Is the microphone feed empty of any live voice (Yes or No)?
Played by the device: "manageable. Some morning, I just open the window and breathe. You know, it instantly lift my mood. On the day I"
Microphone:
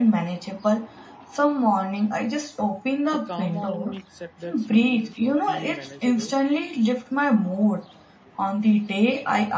No